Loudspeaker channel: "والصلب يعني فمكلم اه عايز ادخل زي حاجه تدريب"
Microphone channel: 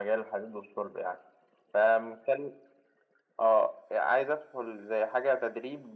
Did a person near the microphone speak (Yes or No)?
No